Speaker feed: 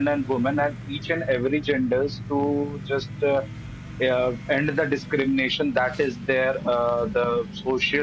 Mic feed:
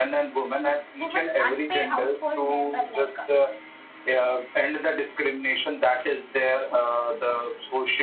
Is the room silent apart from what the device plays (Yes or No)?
No